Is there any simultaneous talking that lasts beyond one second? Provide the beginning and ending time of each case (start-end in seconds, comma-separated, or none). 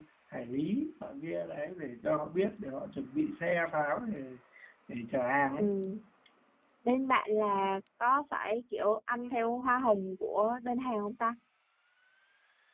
none